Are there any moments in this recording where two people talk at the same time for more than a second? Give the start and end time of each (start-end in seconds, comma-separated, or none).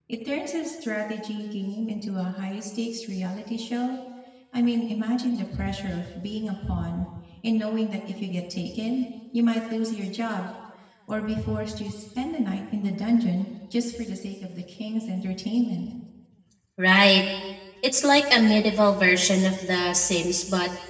none